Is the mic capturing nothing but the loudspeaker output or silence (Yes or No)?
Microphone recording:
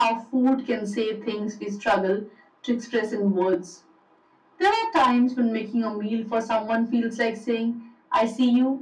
Yes